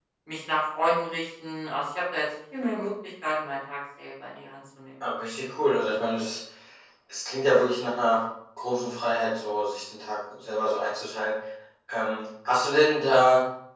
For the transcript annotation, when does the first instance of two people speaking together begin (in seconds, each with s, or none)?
none